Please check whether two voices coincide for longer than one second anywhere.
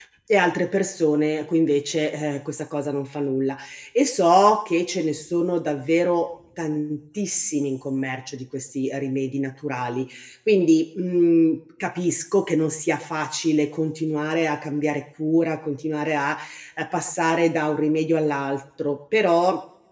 No

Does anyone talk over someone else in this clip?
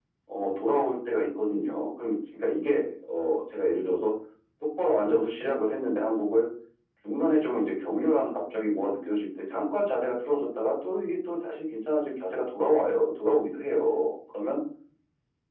No

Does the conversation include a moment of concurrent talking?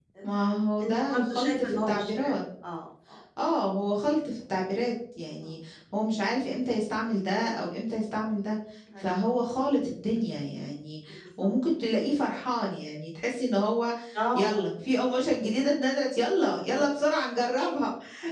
Yes, from 0.8 s

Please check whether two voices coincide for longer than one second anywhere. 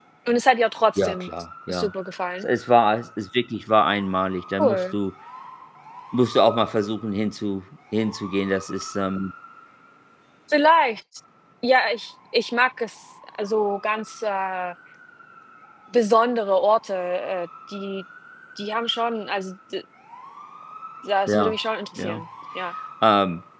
No

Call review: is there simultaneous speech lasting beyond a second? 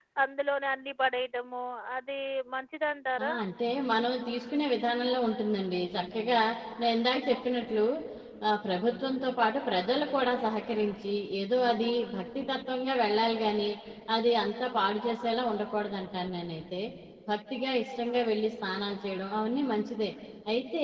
No

